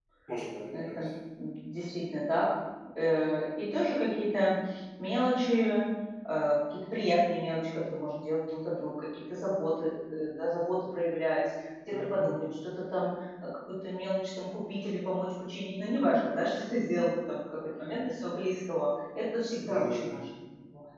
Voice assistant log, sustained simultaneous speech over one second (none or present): none